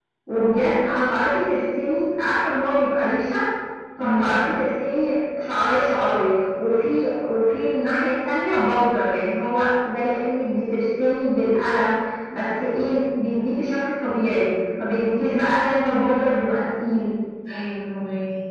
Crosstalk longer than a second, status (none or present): none